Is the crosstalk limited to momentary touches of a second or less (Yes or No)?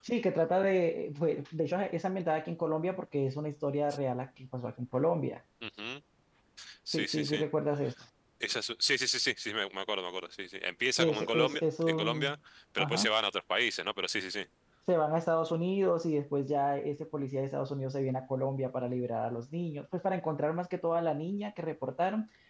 No